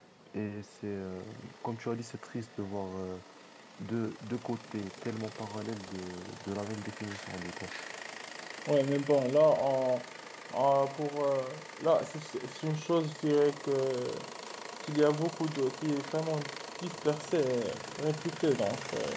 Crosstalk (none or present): none